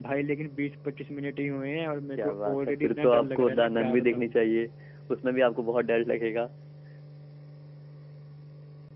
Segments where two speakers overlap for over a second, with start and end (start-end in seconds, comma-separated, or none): 1.9-4.3